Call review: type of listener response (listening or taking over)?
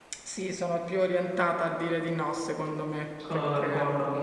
taking over